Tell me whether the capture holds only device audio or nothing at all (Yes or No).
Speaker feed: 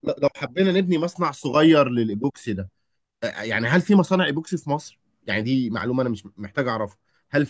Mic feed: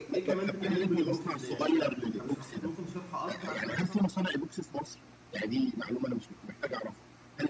No